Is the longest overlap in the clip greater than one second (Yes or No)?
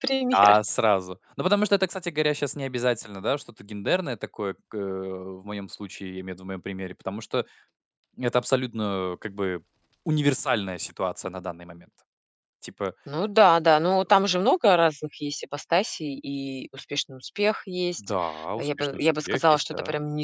Yes